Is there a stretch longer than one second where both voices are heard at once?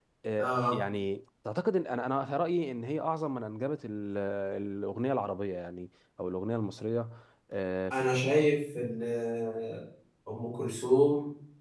No

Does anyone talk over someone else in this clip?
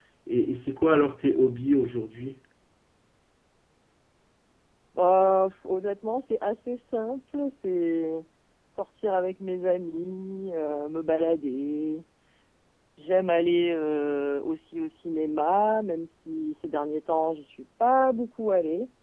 No

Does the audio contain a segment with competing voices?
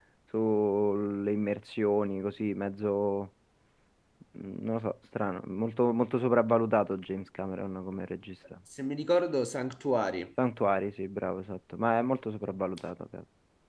No

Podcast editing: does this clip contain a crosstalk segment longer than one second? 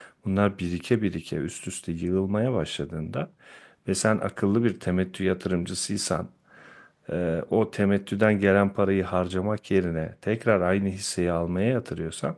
No

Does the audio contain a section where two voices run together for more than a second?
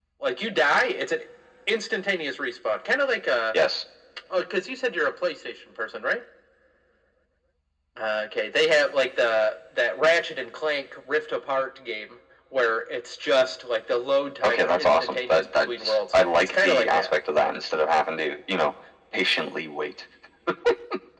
Yes, from 14.4 s

